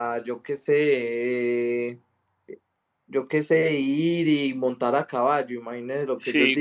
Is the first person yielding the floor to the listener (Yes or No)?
Yes